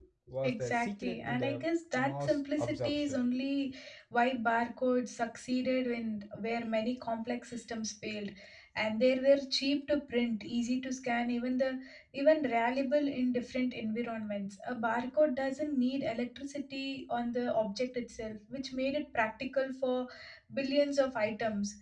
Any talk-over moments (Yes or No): Yes